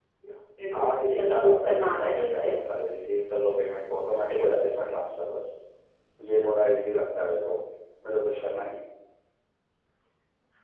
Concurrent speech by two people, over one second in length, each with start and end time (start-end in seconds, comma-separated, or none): 0.7-2.5